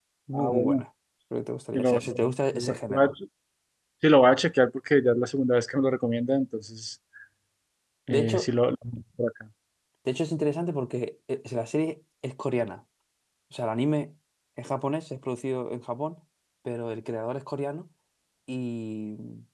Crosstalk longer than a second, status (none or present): present